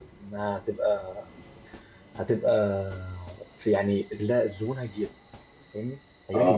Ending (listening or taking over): listening